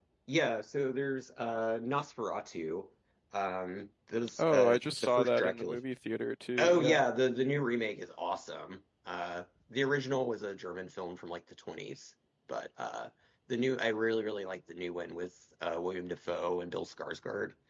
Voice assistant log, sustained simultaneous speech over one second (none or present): present